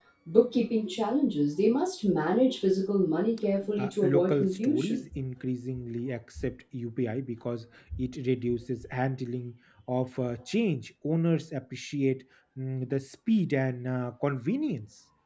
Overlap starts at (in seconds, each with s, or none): 3.8 s